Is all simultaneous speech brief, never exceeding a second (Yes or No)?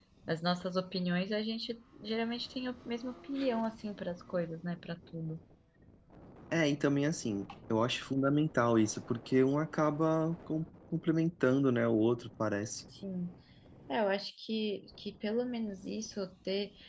Yes